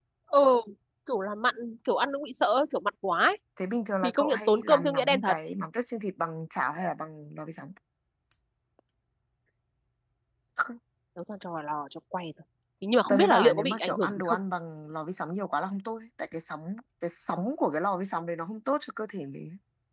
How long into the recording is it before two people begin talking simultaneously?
4.0 s

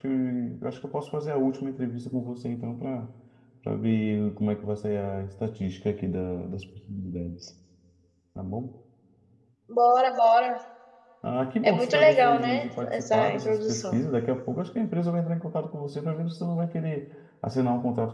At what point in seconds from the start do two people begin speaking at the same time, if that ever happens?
11.6 s

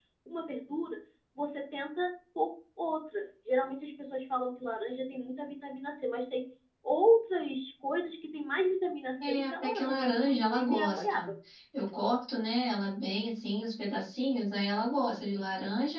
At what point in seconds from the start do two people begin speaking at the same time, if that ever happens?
9.2 s

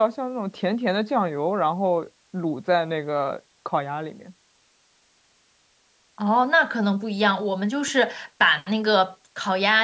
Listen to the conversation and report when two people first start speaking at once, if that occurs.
none

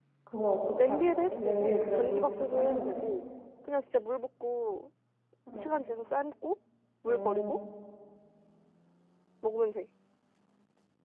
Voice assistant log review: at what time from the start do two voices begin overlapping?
0.8 s

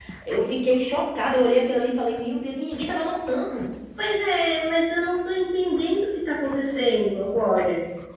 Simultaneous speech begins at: none

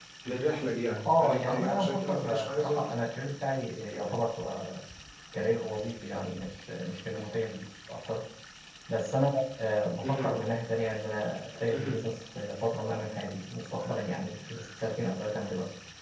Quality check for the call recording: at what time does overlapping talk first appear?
1.1 s

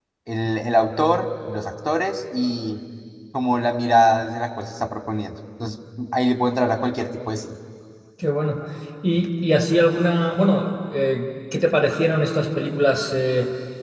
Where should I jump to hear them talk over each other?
none

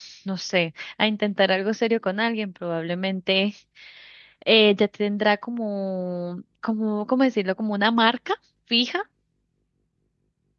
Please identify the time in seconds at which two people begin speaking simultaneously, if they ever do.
none

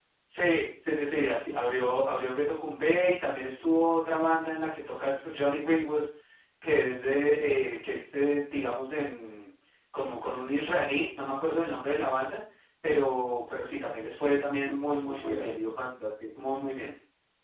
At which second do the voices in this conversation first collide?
14.2 s

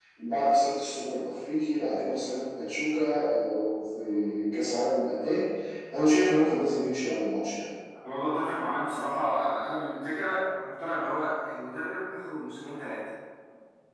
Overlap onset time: none

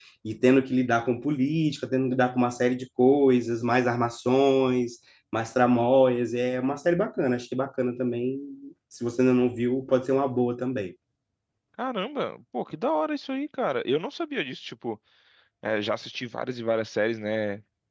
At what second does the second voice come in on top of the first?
none

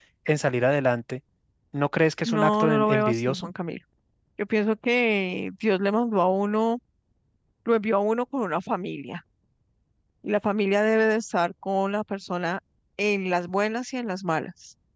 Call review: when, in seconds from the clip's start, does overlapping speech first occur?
2.2 s

